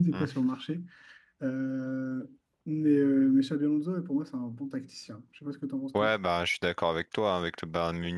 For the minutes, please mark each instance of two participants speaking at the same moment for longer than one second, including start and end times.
none

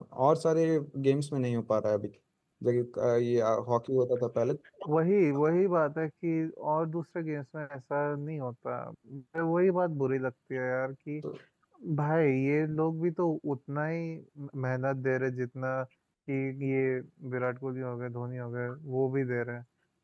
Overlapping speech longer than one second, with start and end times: none

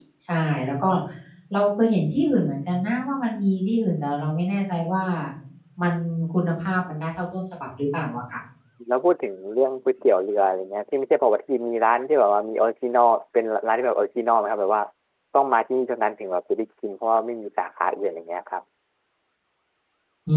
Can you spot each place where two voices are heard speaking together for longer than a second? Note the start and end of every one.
none

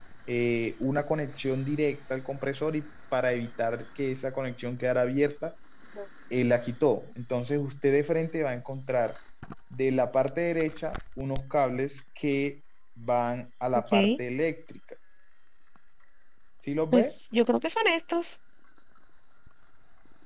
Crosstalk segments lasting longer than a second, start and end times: none

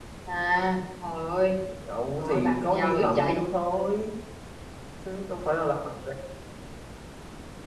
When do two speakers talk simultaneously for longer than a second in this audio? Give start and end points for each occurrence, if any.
2.2-3.4

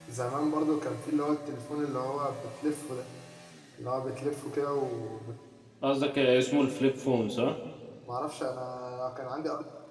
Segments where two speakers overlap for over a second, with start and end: none

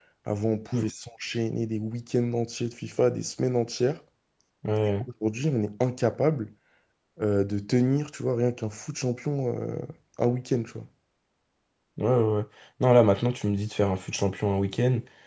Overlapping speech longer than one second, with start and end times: none

